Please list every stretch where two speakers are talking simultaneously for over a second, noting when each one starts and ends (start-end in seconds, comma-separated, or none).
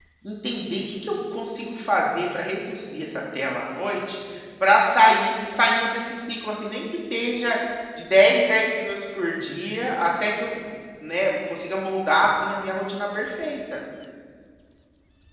none